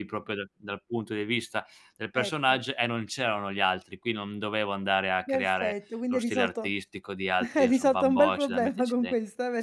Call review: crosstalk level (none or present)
present